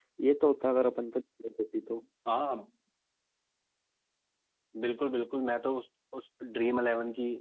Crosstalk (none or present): none